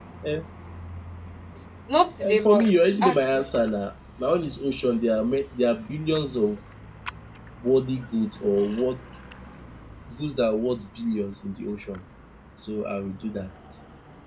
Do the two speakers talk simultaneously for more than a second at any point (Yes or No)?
Yes